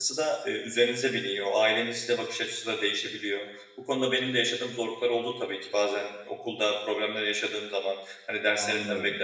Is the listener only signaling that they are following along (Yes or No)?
Yes